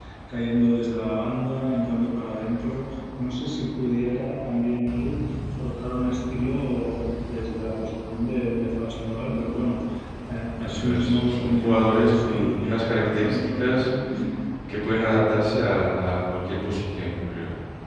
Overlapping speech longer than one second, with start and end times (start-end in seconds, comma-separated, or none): 10.6-13.9